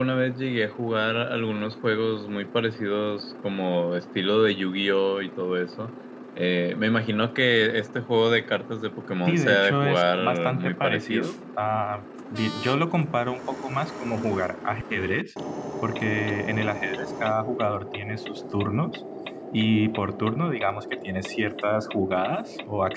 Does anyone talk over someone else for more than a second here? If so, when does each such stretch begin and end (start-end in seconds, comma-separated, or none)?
9.3-11.3